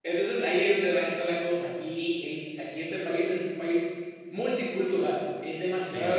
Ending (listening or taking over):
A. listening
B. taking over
A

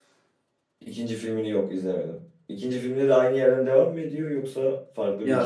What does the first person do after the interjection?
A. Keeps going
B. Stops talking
B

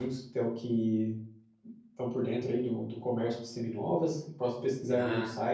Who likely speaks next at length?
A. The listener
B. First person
B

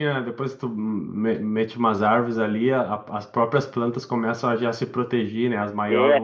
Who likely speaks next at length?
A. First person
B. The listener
B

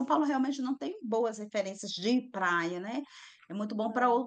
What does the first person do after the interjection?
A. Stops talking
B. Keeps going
B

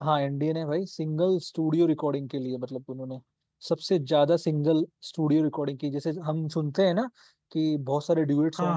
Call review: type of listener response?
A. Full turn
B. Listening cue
B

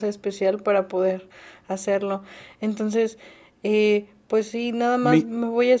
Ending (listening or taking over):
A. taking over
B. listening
B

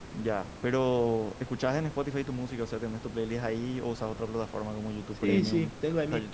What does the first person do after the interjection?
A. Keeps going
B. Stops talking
B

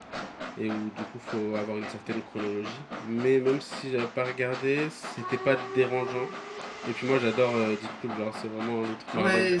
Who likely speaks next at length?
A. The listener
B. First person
A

